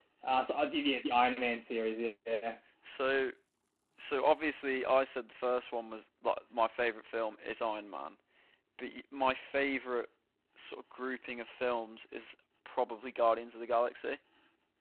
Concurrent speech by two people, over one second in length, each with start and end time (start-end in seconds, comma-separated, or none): none